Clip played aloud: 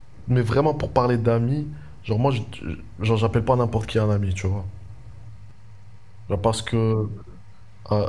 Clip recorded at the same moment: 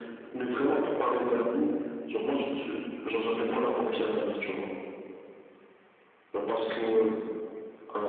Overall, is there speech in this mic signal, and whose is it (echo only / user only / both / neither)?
echo only